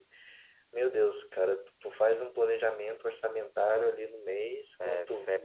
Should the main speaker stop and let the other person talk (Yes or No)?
Yes